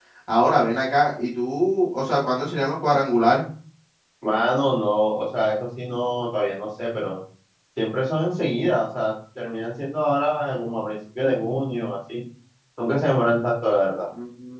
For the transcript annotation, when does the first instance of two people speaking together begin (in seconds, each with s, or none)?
none